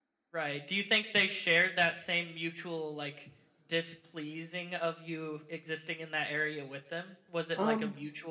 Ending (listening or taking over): listening